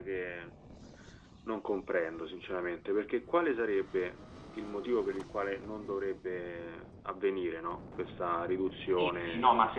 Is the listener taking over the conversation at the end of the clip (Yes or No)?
Yes